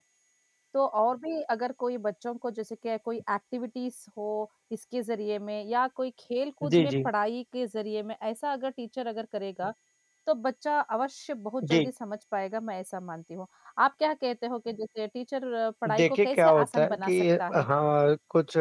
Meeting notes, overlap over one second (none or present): present